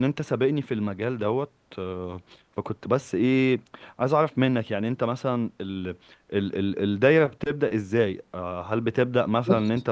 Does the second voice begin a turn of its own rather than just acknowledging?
No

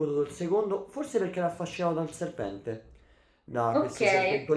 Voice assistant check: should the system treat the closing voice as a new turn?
No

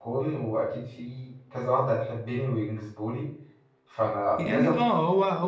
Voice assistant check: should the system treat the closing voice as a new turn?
Yes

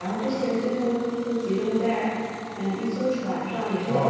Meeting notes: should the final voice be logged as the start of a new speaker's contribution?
Yes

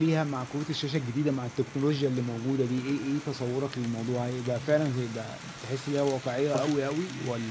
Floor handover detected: No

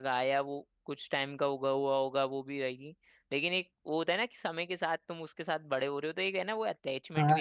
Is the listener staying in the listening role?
No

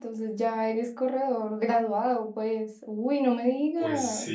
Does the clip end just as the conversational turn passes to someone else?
Yes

